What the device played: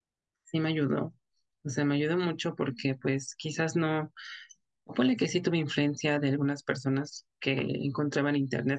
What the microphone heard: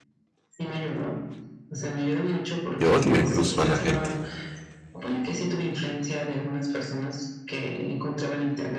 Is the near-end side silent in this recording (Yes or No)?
No